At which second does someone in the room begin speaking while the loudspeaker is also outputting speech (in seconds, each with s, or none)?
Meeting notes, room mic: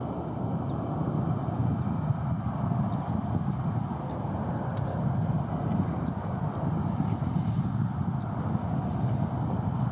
none